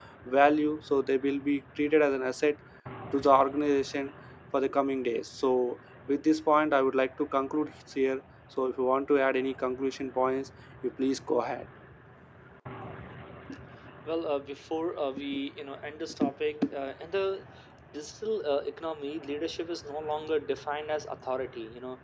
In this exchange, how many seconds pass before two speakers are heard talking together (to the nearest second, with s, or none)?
none